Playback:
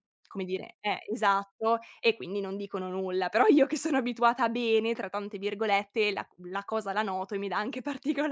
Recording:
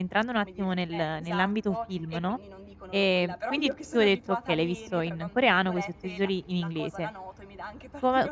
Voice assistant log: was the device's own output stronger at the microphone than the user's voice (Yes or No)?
No